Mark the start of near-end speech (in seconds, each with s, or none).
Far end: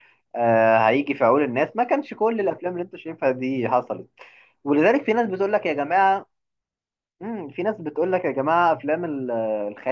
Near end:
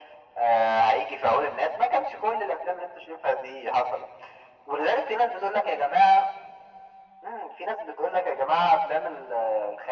none